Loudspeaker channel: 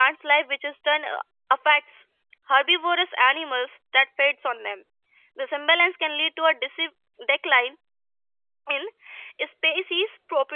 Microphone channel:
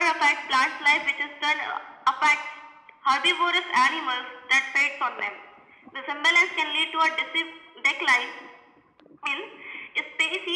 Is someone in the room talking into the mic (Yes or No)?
No